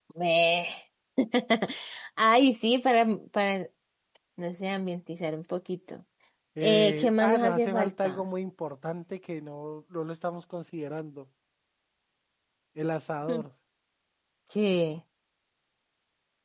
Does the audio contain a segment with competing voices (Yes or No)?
Yes